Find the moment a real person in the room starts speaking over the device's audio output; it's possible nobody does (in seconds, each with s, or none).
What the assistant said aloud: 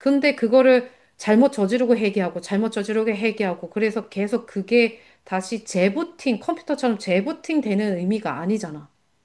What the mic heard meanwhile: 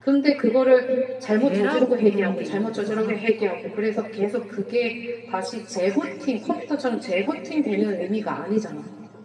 1.4 s